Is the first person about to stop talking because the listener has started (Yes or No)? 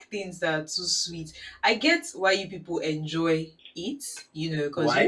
No